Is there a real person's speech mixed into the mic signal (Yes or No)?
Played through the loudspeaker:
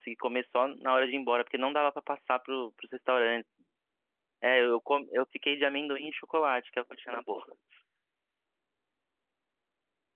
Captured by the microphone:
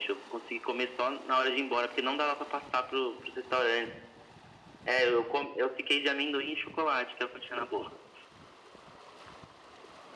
No